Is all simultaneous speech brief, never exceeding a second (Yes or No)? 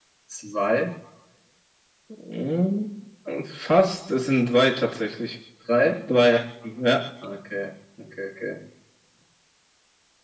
Yes